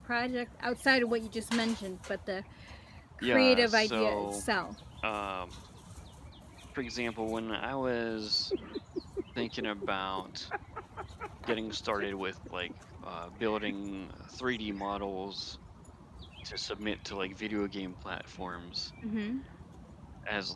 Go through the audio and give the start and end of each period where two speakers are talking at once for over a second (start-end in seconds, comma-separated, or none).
3.2-4.4